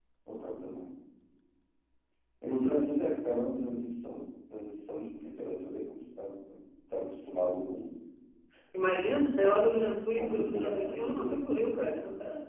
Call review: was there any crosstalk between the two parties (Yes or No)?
Yes